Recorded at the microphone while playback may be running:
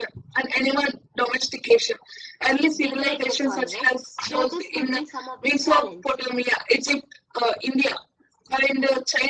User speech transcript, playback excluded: degrade the soil right so this could be some of the challenge

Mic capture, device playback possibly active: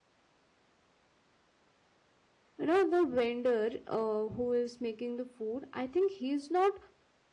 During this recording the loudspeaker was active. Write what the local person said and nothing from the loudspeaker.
You know, the vendor uh, who is making the food, I think he's not

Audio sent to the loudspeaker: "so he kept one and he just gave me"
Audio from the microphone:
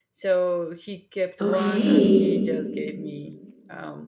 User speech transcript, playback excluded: Okay.

